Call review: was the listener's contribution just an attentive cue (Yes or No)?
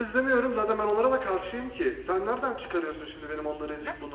No